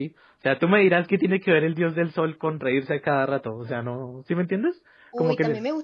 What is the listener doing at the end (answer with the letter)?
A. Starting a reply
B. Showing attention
A